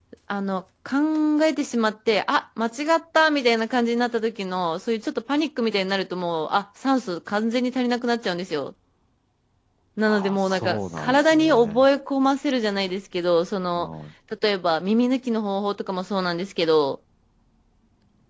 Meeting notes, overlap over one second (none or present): present